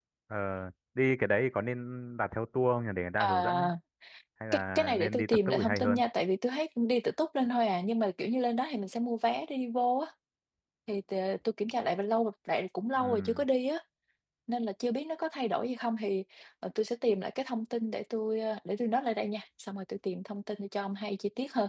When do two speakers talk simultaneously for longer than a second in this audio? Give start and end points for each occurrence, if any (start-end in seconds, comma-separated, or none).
4.5-6.0